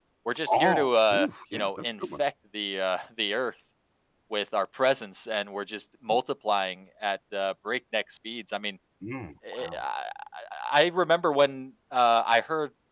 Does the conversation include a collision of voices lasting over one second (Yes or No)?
Yes